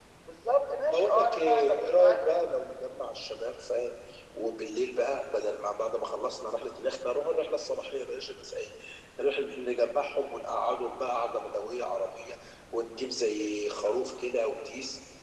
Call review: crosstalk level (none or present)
present